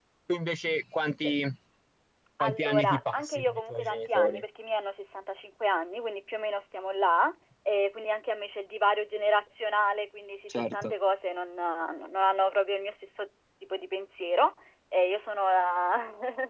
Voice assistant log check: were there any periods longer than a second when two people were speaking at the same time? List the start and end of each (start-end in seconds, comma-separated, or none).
2.4-4.4